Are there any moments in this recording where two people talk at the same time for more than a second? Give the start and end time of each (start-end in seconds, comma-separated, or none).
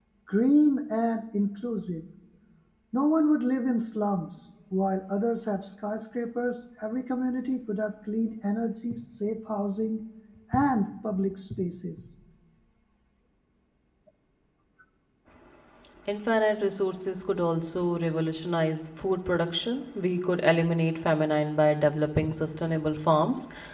none